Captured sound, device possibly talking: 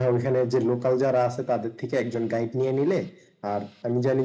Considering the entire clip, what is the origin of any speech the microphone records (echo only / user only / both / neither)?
echo only